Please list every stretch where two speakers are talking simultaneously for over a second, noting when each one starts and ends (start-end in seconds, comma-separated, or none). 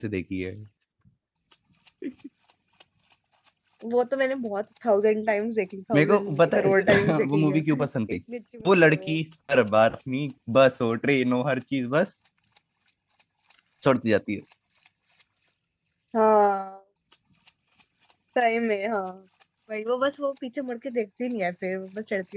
6.0-7.6